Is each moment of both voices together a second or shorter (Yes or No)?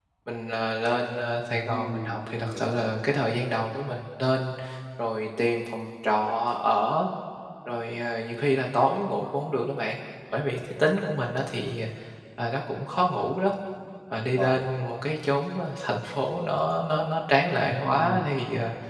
No